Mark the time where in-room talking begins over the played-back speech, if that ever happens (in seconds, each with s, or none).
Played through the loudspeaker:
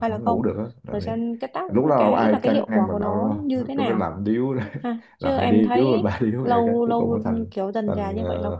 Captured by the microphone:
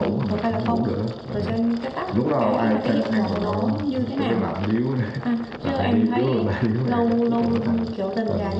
none